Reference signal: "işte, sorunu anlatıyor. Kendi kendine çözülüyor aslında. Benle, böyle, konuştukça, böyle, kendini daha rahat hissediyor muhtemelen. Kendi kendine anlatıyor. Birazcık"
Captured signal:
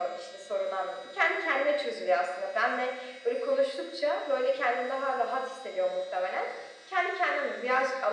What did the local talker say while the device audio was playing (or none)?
none